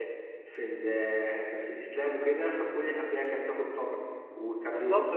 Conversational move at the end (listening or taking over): taking over